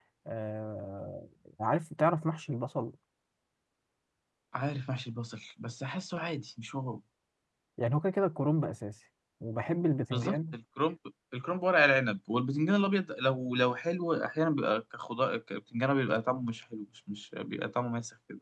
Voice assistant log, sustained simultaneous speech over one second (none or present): none